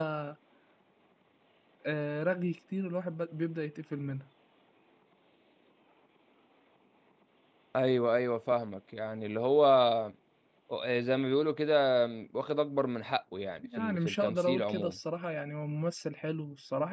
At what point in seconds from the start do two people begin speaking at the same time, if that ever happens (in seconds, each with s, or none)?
13.6 s